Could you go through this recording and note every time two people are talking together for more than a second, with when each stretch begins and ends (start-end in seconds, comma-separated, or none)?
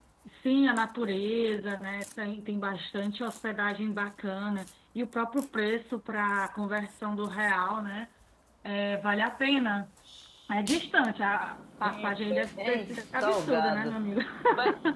11.8-13.9